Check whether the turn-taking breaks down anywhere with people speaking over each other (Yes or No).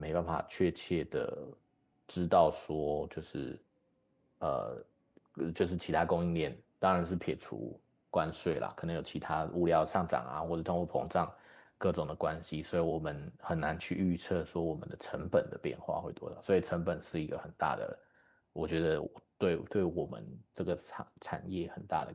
No